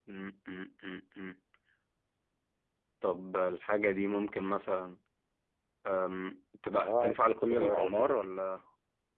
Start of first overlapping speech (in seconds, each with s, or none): 6.8 s